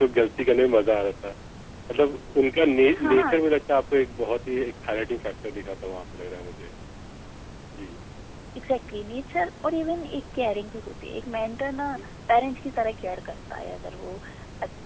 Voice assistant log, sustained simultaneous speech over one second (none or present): none